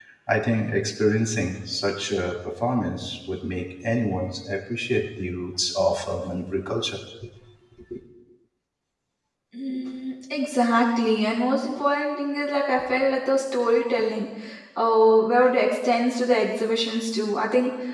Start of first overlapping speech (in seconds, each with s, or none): none